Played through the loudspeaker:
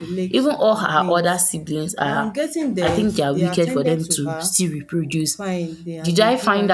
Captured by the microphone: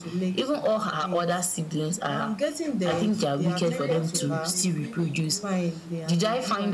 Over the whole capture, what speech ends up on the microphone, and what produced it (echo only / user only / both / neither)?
both